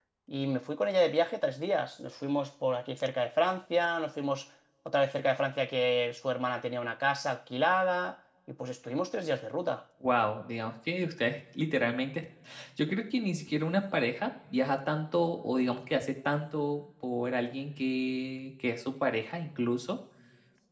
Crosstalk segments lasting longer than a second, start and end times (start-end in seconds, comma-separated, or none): none